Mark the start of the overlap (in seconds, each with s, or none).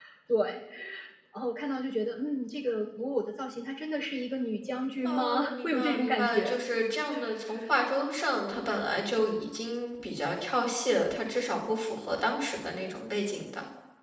5.0 s